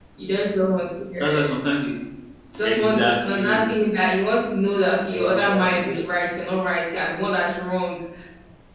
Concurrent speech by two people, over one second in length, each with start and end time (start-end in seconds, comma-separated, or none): 2.6-3.9, 5.1-6.3